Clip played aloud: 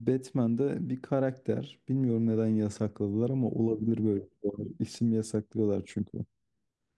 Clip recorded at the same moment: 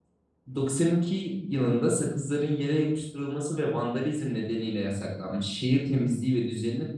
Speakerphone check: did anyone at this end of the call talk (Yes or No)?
Yes